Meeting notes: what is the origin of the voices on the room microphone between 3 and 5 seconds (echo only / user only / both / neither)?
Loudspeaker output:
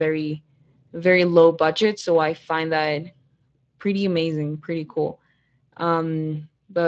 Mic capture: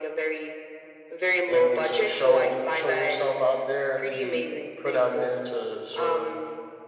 both